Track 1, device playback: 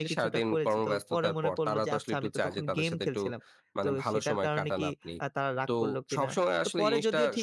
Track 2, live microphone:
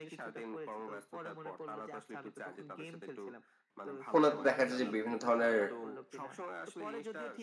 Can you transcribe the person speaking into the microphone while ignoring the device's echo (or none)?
ফোনে তো দেখা যায় যে বিভিন্ন ধরনের